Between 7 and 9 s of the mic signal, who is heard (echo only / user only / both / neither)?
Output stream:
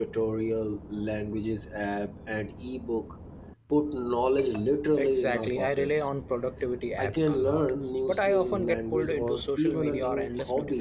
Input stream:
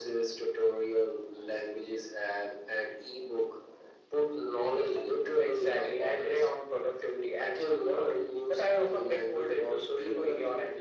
echo only